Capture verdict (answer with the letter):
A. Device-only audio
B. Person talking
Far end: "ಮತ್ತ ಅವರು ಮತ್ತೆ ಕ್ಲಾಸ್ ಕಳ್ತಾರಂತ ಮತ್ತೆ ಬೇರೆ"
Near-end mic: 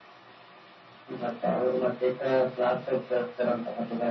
A